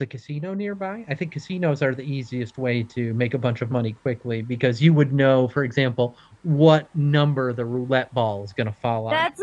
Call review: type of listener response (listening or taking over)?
taking over